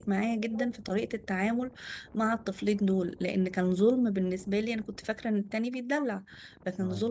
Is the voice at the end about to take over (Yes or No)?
No